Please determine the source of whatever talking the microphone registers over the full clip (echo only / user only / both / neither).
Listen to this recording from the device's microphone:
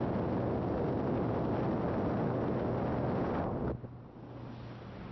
neither